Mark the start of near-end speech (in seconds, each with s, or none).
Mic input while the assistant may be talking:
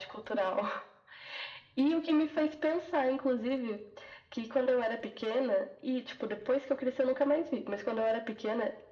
none